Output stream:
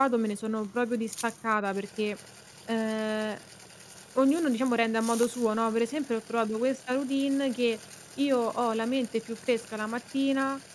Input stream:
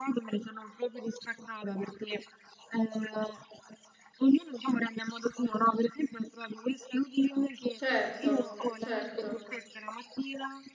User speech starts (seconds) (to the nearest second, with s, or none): 8 s